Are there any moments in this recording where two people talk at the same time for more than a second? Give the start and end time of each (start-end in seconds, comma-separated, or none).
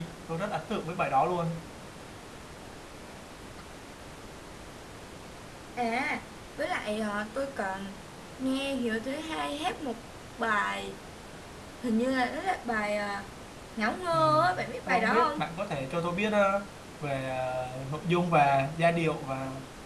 14.1-15.5